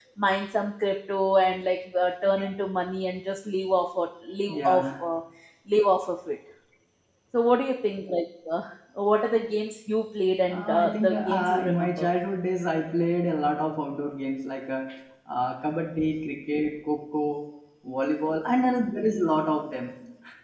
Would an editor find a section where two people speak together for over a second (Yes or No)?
Yes